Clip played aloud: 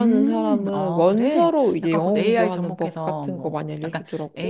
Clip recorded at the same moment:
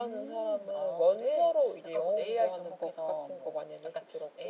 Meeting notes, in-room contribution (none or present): none